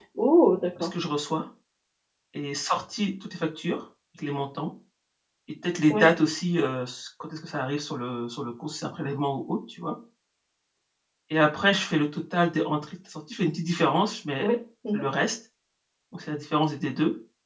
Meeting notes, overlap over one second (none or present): none